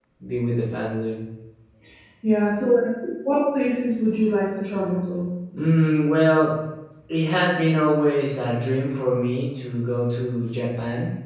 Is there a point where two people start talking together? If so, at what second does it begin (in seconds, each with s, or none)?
none